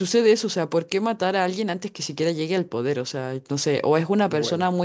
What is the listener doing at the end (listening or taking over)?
listening